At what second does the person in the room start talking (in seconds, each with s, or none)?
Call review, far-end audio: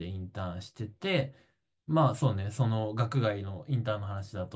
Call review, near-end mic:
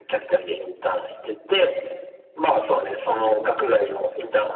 none